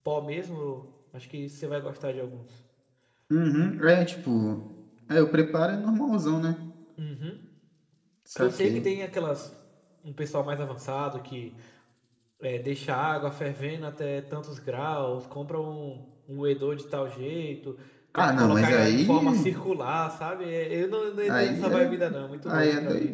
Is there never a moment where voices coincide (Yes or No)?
No